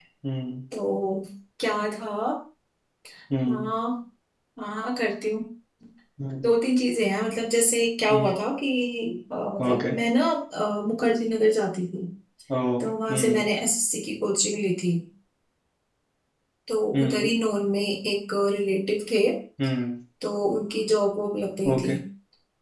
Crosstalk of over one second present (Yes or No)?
No